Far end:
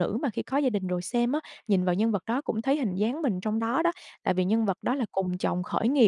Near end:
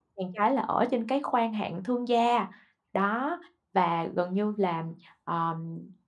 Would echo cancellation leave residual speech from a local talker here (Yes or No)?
Yes